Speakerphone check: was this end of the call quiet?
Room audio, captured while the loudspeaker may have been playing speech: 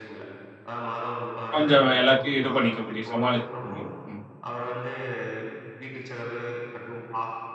No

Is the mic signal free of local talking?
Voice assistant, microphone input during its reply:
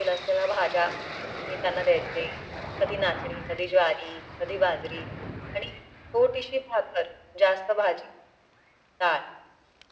Yes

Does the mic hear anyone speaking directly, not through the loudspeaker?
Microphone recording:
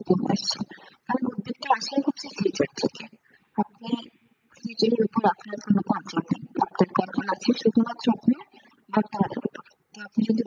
No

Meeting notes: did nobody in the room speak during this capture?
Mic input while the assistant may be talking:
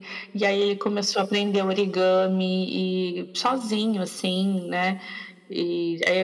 Yes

